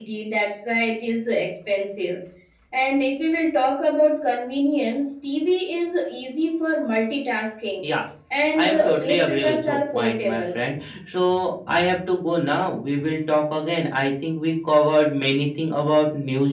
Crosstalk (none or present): present